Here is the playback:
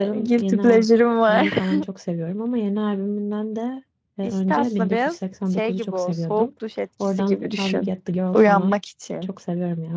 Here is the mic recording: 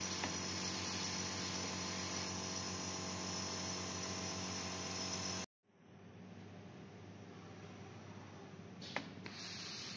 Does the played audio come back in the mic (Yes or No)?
No